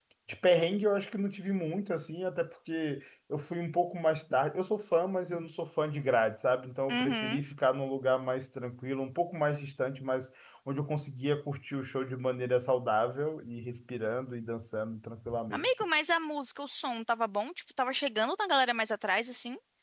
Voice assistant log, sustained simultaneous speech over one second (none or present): none